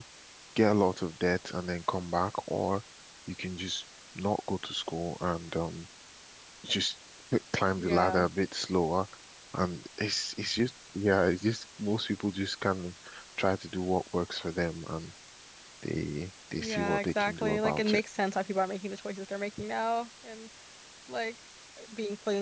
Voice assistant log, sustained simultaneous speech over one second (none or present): present